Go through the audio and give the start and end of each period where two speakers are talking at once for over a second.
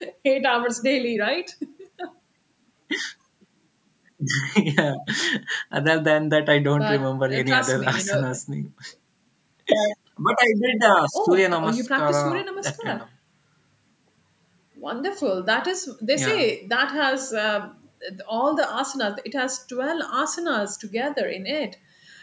6.8-8.2, 11.1-13.0

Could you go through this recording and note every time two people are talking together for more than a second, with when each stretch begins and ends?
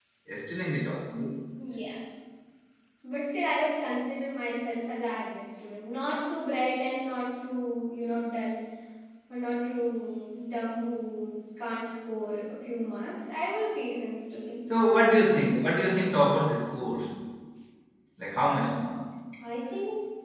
none

